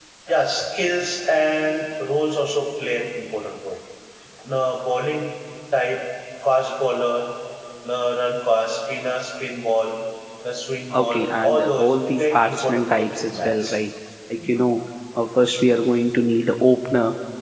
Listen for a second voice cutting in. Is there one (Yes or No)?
Yes